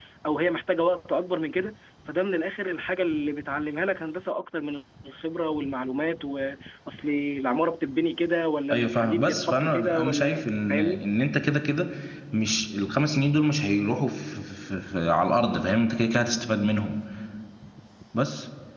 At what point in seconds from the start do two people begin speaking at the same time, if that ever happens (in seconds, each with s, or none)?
8.7 s